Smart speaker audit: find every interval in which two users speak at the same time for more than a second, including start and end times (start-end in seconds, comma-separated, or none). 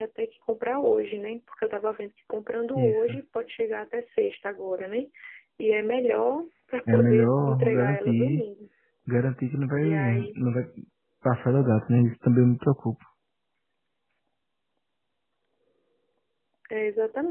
6.9-8.4